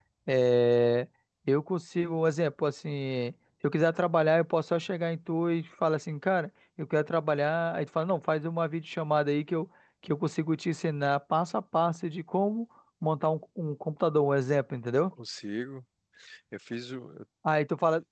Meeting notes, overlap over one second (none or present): none